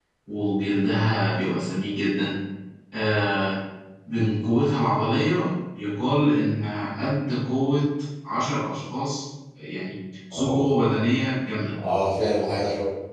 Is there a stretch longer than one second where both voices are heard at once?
No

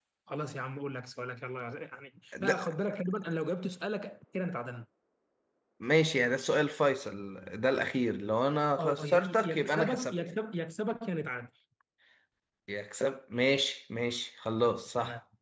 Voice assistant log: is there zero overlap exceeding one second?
No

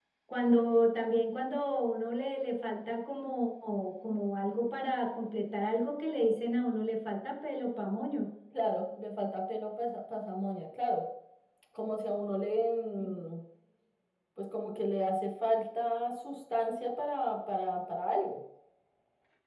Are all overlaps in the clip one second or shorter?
Yes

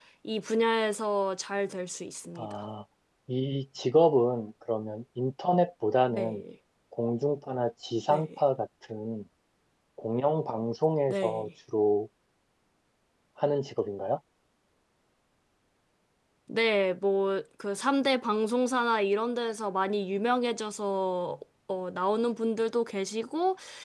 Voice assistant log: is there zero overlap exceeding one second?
Yes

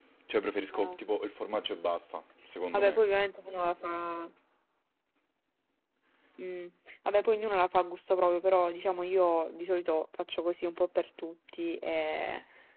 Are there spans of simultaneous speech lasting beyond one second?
No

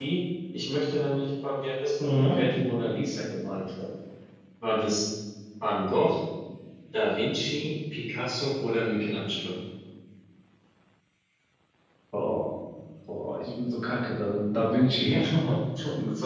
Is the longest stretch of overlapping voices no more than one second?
Yes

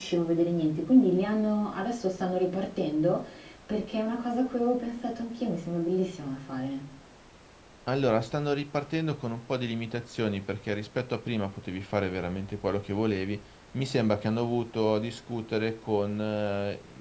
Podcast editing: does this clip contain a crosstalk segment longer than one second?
No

